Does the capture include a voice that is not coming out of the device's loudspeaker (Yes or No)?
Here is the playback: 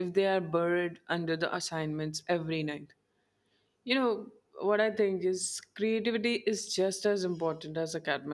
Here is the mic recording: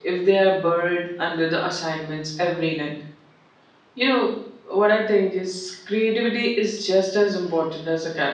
No